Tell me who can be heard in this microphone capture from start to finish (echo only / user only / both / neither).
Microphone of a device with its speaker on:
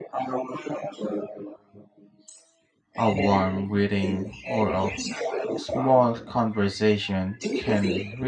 both